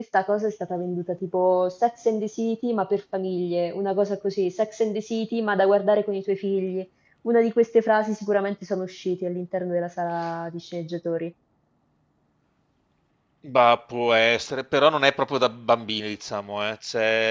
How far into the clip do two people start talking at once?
none

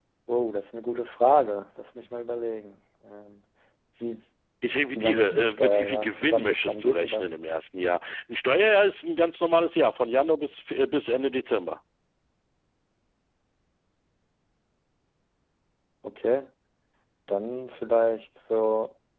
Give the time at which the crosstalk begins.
5.0 s

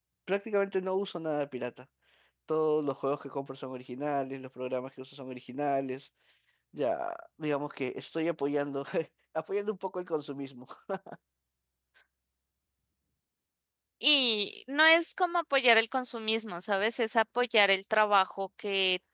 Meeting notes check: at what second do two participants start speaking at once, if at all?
none

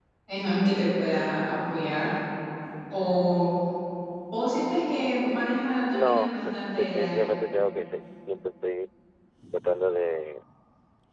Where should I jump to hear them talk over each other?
5.9 s

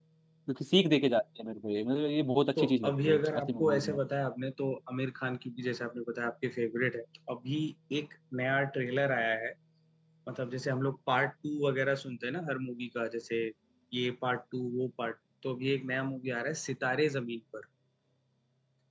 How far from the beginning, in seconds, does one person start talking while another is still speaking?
2.6 s

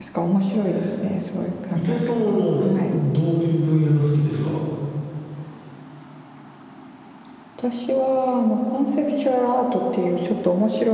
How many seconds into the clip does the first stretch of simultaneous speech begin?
1.7 s

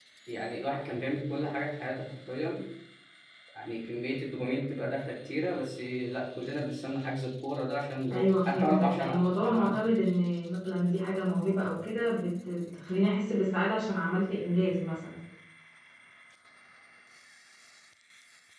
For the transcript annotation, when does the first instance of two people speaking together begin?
8.1 s

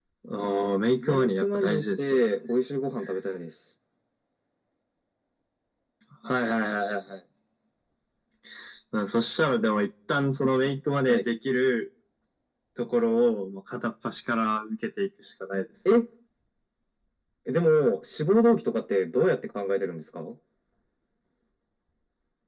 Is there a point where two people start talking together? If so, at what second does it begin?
1.0 s

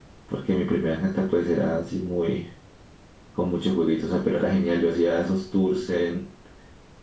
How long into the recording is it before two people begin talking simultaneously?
none

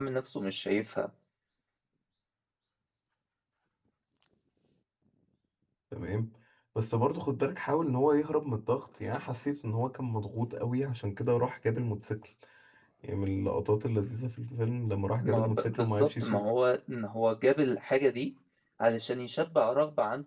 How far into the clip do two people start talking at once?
15.2 s

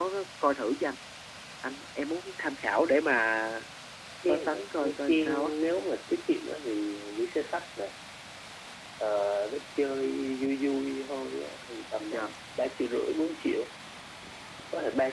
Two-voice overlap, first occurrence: 4.2 s

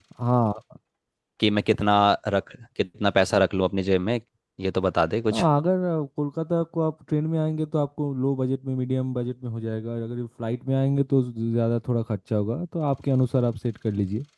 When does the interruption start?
none

